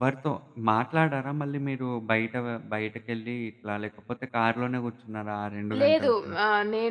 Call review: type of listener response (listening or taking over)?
taking over